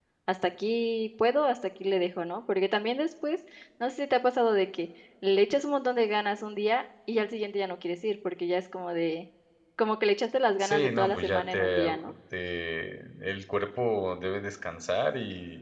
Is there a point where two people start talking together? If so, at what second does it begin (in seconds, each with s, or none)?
10.6 s